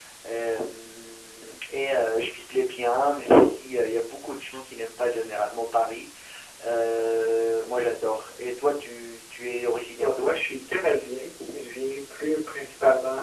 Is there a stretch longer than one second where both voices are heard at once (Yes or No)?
No